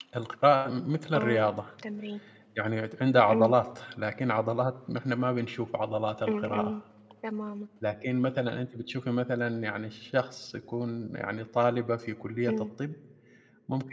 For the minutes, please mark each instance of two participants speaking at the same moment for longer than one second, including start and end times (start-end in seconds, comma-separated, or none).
none